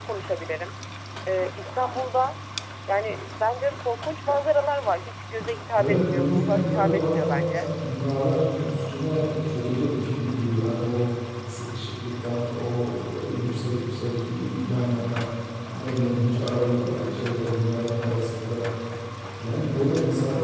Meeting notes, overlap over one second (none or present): present